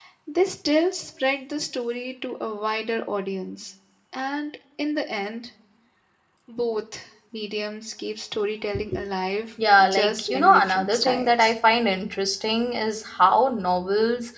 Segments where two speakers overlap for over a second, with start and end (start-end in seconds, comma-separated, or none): 9.8-11.5